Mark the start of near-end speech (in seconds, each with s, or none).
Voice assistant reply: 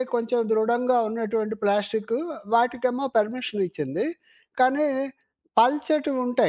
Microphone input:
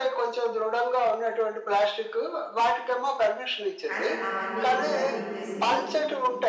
3.9 s